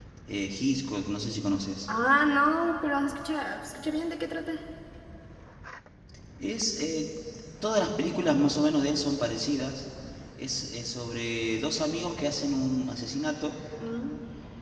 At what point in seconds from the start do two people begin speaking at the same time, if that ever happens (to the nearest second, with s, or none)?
none